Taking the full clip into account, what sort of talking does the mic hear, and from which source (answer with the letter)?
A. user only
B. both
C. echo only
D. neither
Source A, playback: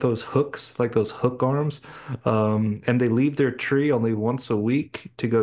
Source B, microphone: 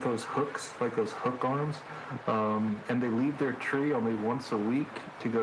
C